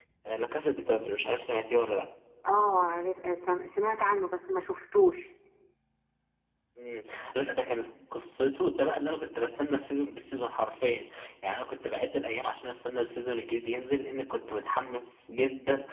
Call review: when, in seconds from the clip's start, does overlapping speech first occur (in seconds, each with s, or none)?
none